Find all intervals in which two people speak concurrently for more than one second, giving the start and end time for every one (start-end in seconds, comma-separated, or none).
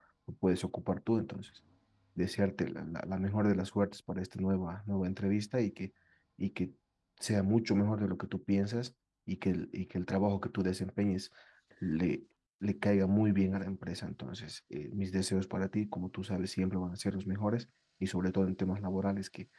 none